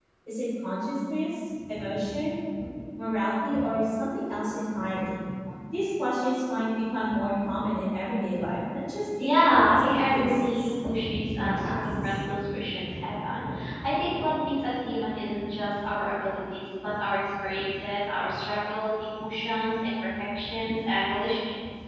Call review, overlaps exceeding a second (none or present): present